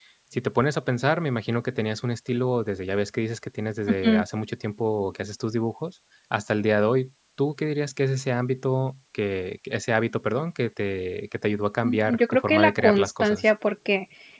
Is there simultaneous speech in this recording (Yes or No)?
Yes